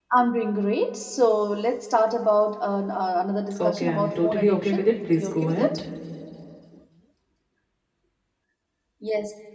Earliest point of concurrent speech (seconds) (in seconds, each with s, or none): 3.6 s